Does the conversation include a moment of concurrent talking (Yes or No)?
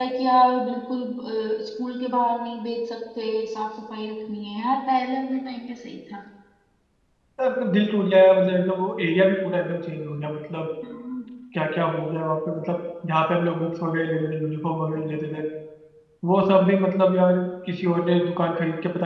No